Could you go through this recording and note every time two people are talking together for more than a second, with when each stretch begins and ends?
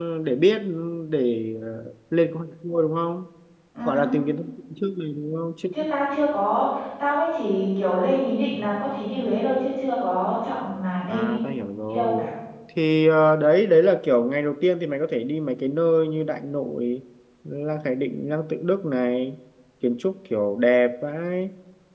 none

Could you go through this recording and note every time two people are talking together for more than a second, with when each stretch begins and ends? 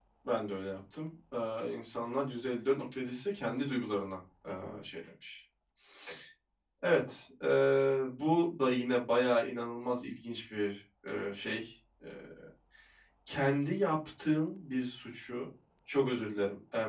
none

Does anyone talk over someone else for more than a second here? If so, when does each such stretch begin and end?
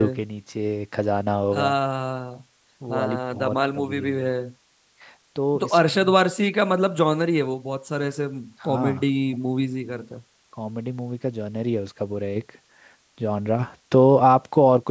2.9-4.3

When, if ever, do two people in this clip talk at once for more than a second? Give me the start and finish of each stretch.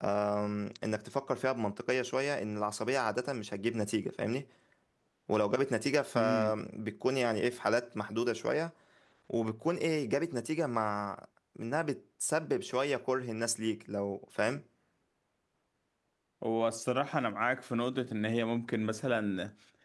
none

